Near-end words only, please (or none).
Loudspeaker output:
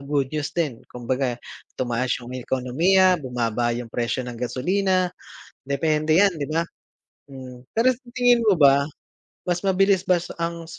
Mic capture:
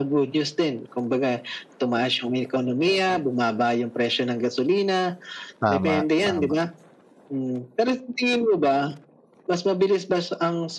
Tama, tama.